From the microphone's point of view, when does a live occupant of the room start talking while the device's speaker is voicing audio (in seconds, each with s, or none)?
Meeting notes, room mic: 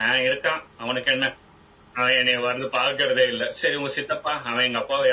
none